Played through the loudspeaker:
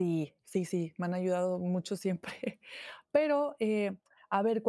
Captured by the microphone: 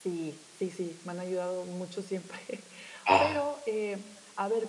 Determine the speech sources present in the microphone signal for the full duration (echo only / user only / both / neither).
both